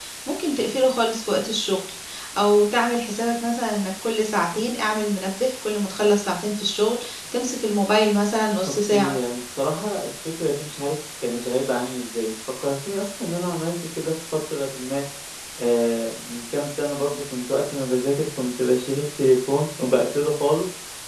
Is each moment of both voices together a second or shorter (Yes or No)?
Yes